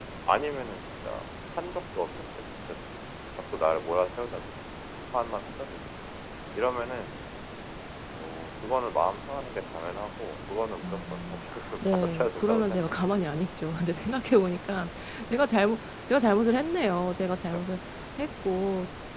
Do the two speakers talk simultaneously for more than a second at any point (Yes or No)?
Yes